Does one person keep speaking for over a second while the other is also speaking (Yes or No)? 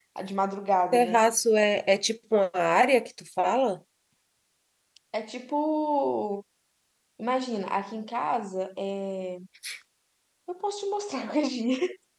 No